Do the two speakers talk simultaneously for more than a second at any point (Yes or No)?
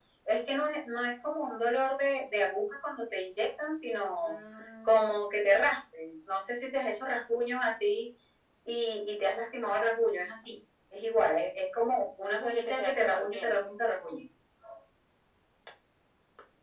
Yes